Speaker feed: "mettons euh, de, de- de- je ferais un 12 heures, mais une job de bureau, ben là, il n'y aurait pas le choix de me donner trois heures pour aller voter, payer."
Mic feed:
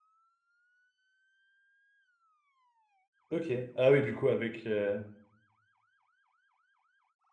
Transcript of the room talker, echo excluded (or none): Ok. Ah oui, du coup, avec... euh,